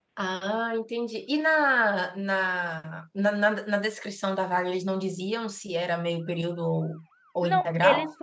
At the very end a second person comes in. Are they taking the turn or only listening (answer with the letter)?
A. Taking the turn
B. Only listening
A